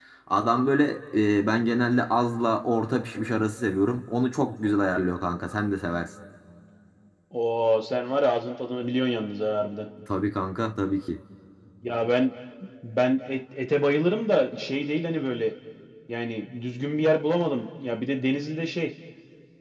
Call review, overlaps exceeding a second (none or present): none